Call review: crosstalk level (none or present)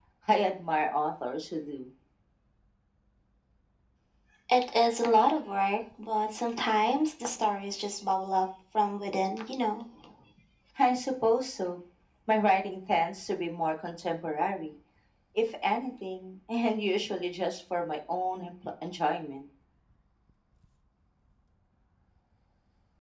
none